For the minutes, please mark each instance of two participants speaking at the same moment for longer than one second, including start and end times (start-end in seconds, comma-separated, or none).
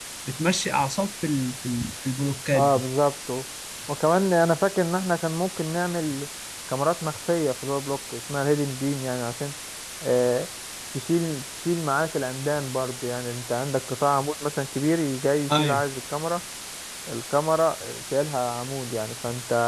none